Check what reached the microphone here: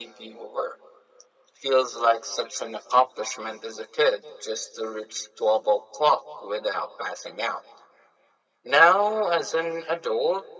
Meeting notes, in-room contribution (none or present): none